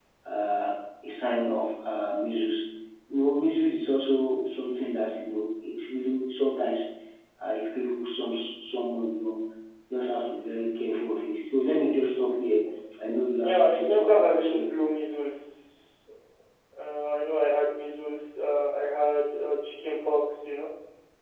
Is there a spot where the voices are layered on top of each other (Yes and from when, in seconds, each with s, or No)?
Yes, from 13.4 s